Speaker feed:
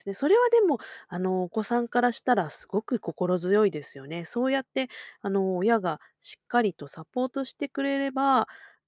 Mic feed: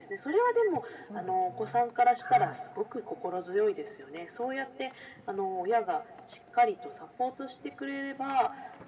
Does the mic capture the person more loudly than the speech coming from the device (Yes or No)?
No